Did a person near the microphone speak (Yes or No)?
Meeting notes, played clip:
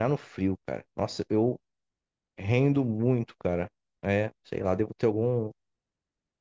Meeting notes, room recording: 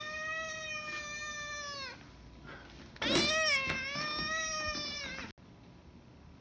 No